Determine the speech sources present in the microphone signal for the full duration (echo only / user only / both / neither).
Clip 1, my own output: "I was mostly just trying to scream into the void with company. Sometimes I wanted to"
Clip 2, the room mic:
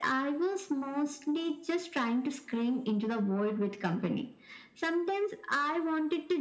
echo only